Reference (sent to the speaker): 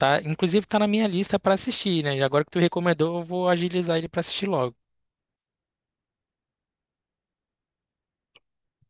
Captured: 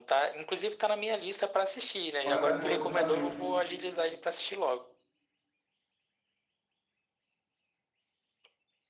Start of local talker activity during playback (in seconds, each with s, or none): 2.2 s